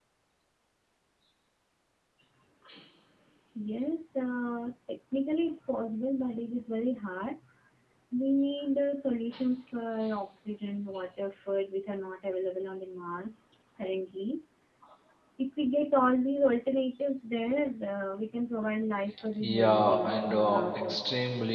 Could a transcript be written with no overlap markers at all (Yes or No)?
No